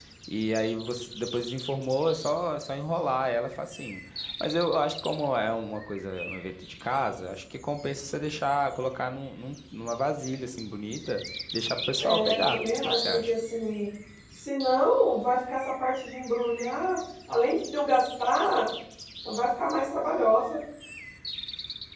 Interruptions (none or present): present